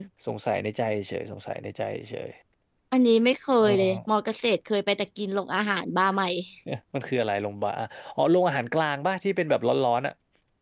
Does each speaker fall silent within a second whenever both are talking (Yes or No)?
Yes